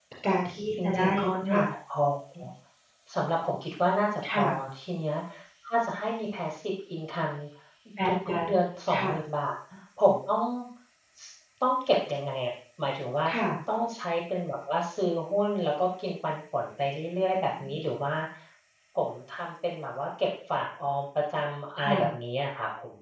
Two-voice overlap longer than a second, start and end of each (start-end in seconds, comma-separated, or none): none